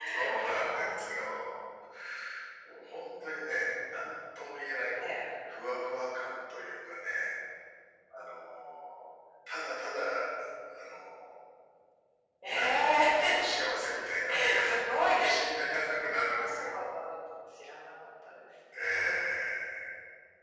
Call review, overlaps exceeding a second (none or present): present